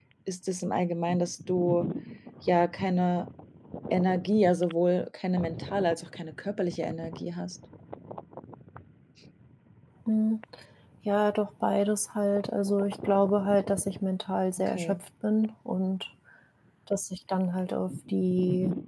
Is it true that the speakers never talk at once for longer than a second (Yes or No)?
Yes